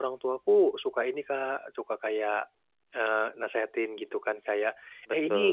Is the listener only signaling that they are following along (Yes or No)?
Yes